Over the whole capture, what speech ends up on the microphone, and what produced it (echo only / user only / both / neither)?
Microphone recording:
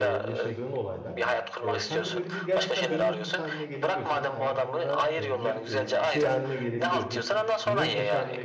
both